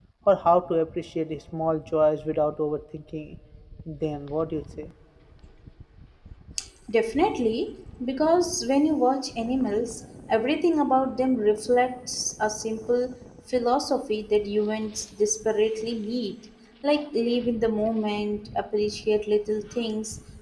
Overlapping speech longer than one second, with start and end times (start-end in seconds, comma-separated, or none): none